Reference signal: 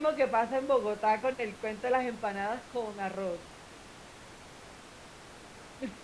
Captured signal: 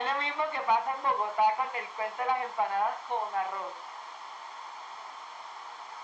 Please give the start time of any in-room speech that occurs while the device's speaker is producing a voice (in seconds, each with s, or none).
none